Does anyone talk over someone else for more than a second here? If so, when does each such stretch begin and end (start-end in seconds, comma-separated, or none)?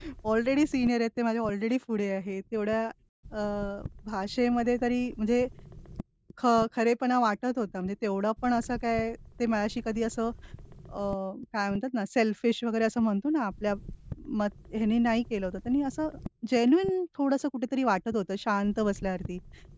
none